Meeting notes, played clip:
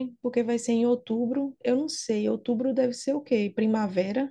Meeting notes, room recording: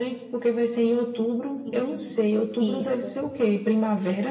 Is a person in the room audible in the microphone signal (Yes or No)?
Yes